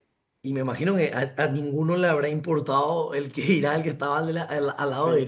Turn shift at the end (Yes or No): No